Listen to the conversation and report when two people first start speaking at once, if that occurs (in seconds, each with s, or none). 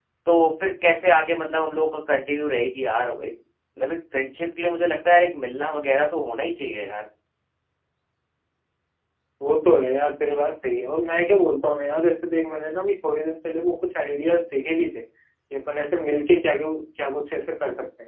none